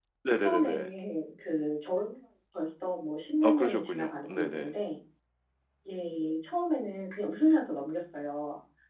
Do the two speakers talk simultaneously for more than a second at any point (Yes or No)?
Yes